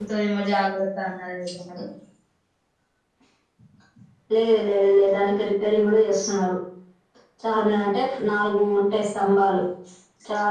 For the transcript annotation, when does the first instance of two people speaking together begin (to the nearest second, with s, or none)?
none